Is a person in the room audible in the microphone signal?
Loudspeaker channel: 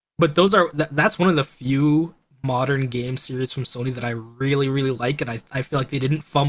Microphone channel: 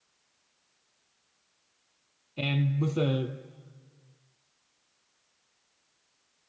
Yes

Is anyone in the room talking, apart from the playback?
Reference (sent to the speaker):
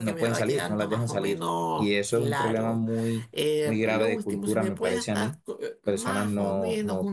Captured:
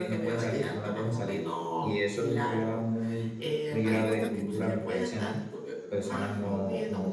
Yes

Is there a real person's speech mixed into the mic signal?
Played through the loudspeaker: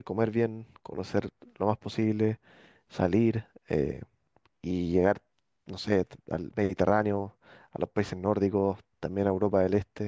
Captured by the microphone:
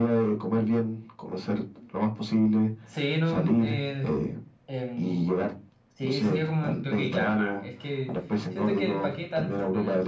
Yes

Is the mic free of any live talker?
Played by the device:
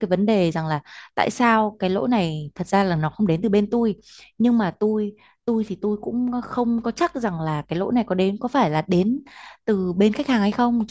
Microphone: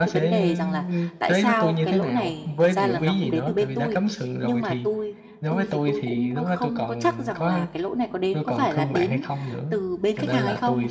No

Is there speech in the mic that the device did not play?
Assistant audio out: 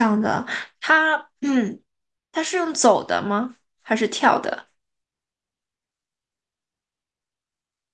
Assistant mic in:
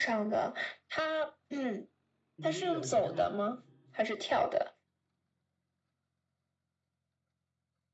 Yes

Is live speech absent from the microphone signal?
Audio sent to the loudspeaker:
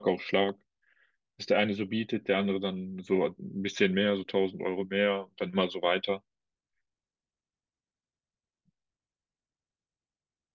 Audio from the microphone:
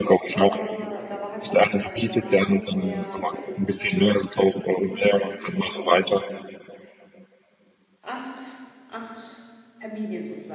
No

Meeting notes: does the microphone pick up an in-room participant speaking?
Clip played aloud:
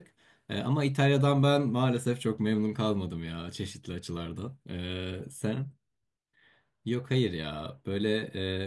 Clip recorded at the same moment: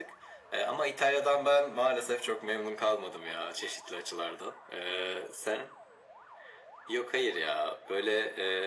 No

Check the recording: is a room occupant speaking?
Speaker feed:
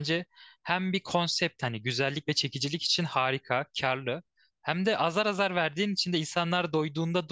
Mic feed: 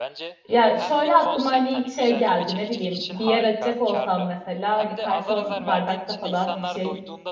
Yes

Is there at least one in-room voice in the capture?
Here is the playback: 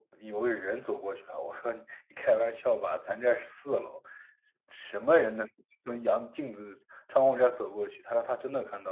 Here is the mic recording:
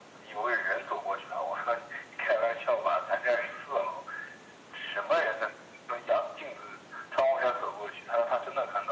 No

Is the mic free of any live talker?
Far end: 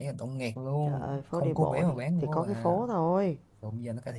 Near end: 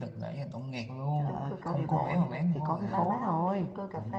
No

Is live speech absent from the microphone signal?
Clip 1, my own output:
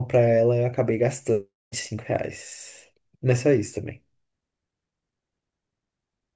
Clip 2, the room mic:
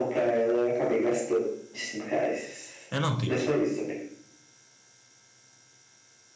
No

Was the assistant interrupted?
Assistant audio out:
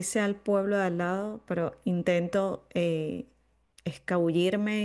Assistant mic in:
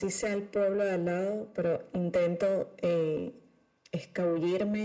No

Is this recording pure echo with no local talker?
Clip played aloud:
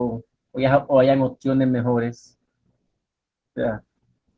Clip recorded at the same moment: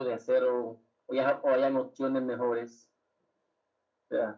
Yes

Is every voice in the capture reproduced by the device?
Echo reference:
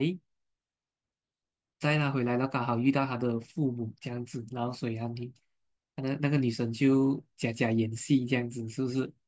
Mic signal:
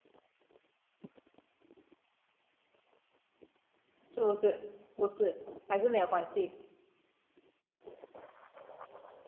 No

